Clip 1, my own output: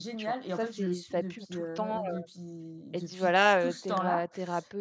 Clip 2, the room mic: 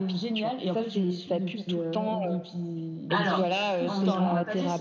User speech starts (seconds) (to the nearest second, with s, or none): 3 s